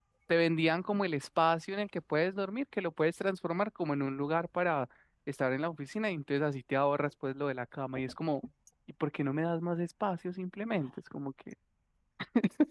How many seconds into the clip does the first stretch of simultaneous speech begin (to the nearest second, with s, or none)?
none